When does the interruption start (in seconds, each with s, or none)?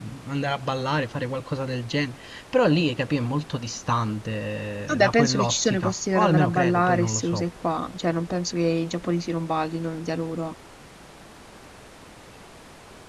4.9 s